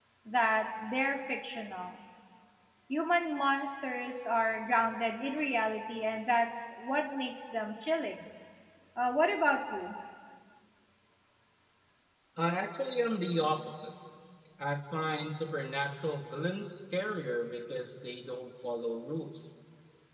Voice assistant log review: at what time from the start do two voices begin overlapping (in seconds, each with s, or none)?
none